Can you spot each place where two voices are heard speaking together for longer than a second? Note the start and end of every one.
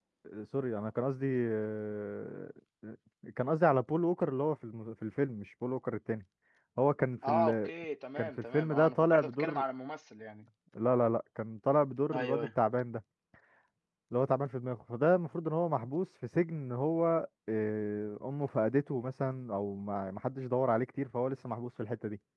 8.2-9.6

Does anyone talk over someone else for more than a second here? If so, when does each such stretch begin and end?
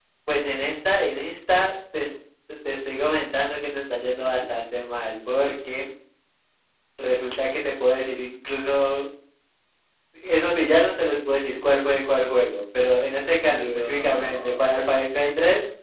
13.5-15.0

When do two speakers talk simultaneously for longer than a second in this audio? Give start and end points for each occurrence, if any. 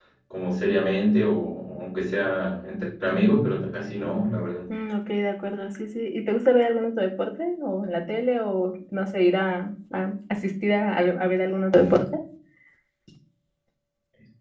none

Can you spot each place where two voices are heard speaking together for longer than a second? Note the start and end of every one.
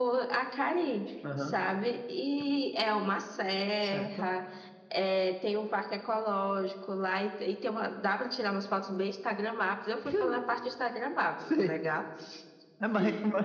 none

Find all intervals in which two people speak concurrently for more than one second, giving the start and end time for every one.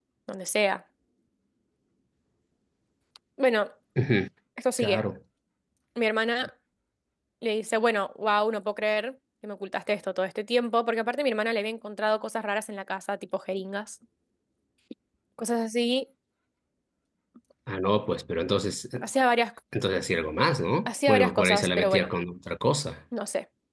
20.9-22.1

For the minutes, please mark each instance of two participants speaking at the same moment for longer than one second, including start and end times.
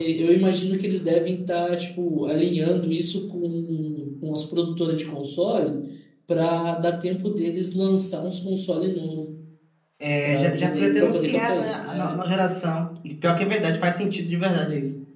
10.2-12.3

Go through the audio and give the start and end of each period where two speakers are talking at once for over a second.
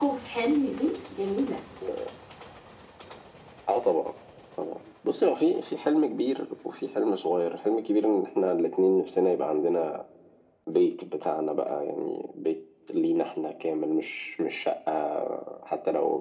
none

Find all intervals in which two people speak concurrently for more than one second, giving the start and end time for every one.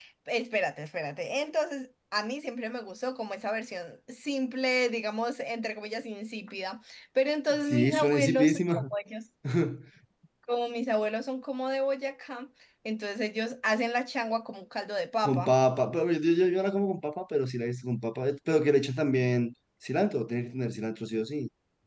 7.6-8.8

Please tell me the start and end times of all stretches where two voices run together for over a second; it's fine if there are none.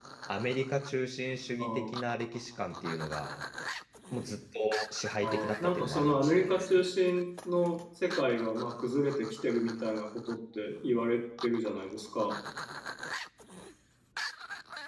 5.2-6.8

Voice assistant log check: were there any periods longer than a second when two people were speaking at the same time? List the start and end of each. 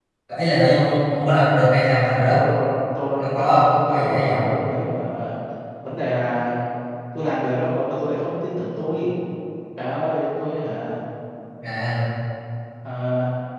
3.2-4.5

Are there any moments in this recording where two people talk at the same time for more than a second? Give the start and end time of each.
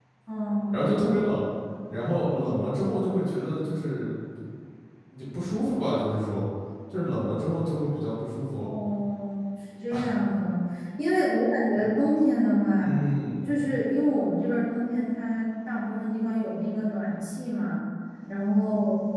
none

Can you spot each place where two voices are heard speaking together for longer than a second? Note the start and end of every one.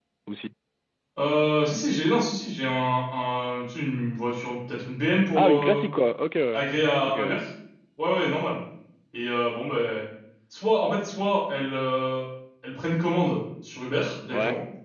none

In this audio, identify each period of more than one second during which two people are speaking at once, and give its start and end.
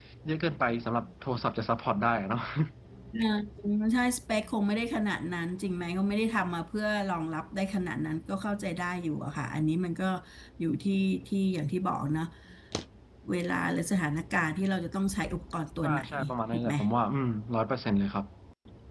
none

